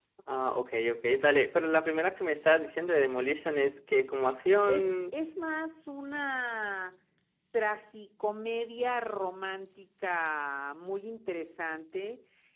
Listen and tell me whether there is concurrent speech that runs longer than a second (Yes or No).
No